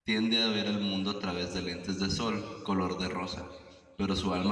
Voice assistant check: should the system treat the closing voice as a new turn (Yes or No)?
No